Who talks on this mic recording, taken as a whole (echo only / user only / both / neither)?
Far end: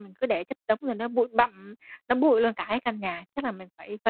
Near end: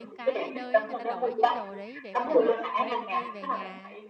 both